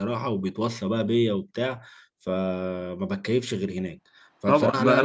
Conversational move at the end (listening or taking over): taking over